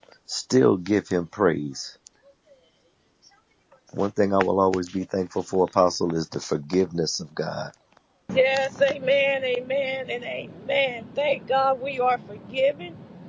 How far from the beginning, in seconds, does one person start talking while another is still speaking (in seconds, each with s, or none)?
none